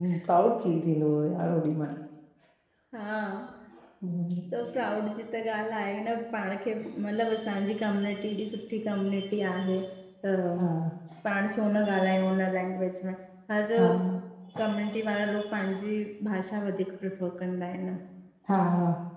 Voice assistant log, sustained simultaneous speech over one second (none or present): none